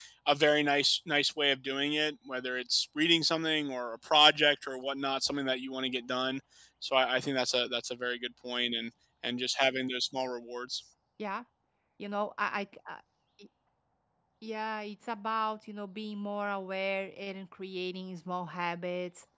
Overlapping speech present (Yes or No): No